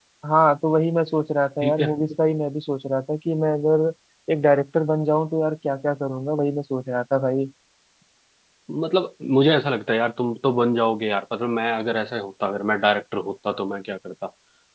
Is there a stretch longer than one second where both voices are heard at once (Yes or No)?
No